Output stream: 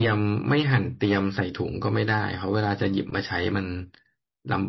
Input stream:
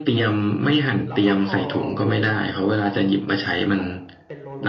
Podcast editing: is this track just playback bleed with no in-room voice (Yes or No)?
No